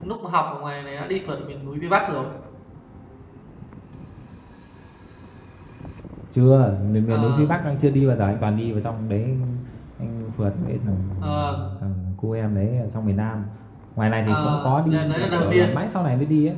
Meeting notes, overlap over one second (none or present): present